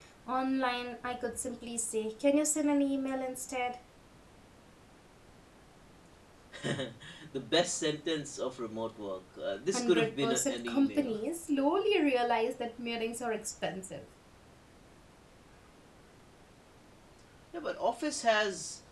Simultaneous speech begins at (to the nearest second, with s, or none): 10 s